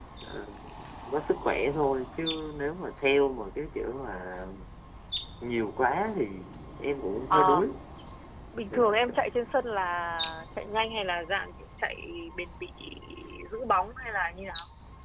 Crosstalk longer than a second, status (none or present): none